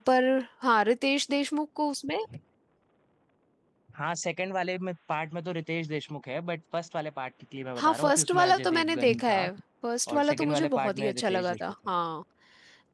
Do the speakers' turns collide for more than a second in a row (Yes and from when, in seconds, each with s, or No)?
Yes, from 7.8 s